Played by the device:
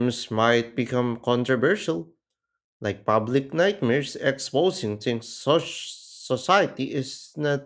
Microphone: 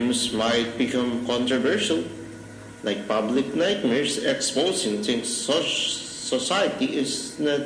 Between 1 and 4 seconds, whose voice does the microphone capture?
echo only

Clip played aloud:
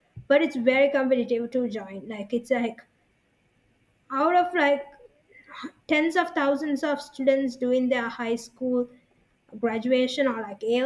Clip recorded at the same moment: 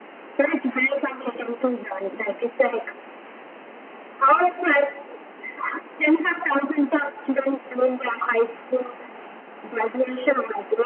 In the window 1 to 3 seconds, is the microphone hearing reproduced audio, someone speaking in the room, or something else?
echo only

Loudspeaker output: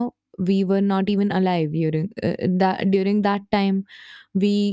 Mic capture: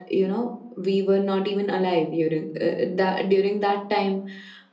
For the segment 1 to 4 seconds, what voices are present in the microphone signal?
echo only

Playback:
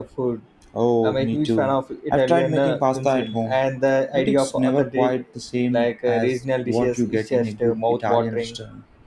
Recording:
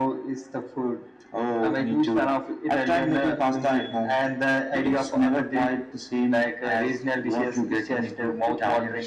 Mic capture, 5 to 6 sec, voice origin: echo only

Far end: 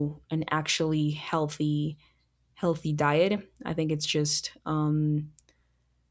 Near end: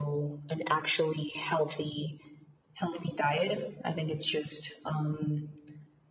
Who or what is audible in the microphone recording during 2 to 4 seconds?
echo only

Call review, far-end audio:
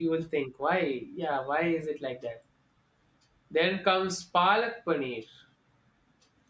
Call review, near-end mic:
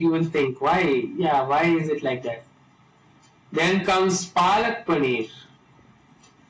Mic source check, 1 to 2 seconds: echo only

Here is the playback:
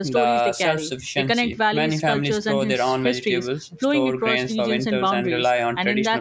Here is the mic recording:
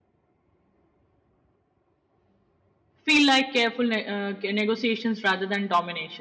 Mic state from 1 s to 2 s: neither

